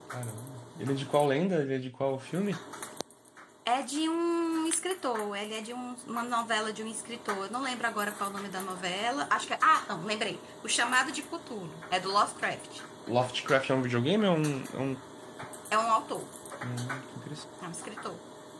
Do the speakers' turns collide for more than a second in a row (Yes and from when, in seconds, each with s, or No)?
No